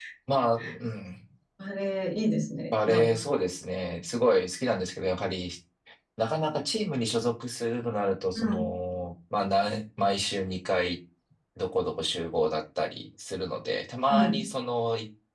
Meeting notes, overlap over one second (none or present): none